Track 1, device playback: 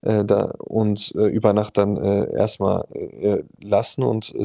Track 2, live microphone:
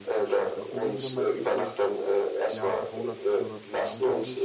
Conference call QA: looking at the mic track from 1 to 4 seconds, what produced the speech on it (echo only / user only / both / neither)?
both